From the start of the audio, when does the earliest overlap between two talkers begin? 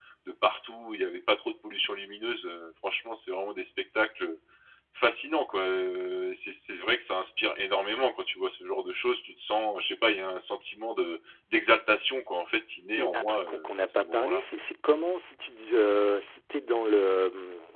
13.0 s

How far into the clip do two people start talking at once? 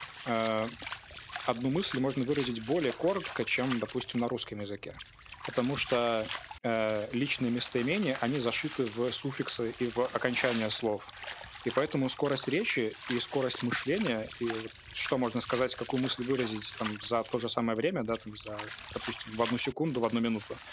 none

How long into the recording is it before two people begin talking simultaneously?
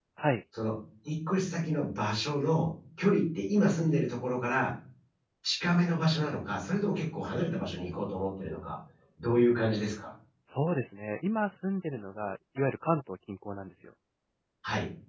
none

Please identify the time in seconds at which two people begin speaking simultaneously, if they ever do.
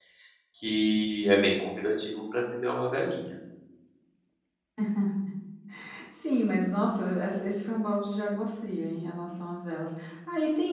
none

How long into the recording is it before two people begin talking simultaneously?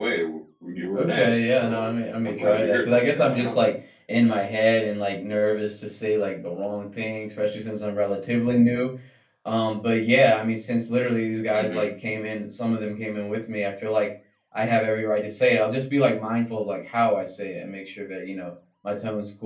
0.9 s

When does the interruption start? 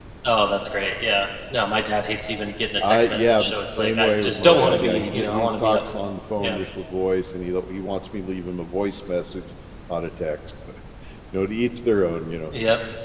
2.8 s

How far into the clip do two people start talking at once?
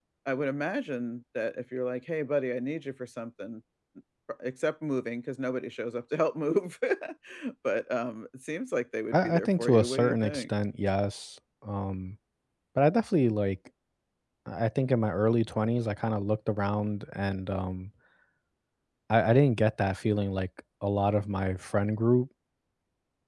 9.1 s

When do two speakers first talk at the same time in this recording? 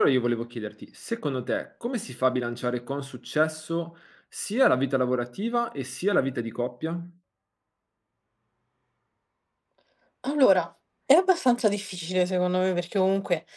none

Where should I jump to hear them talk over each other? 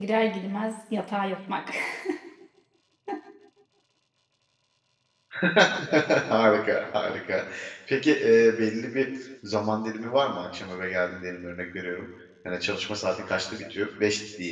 none

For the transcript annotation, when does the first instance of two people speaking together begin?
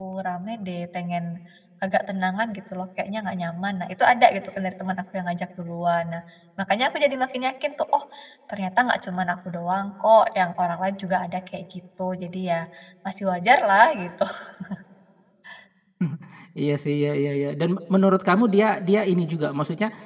none

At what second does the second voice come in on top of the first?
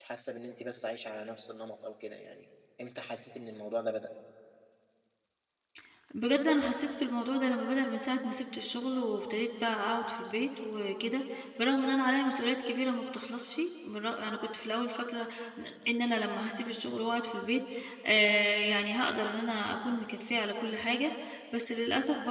none

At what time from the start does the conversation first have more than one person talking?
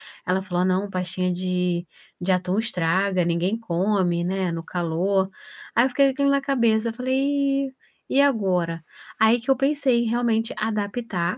none

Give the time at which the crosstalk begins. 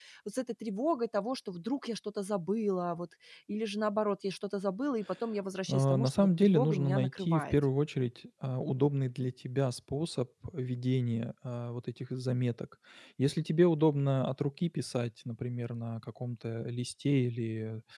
5.7 s

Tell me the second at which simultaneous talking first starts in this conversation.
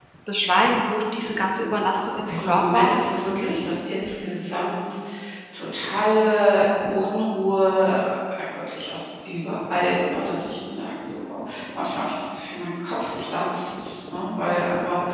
2.3 s

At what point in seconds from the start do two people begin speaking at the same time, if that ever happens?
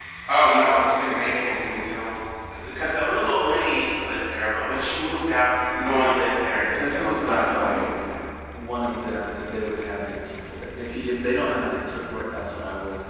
6.5 s

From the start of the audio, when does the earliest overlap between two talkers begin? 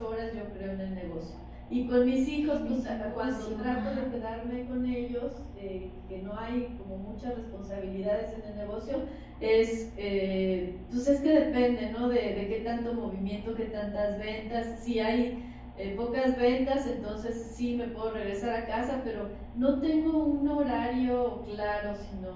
2.4 s

